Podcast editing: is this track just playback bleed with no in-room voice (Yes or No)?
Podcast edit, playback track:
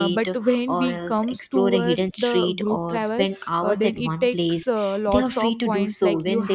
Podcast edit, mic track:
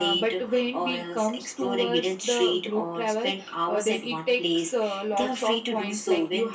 Yes